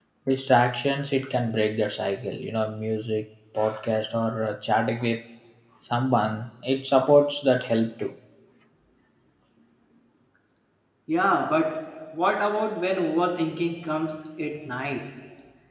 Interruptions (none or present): none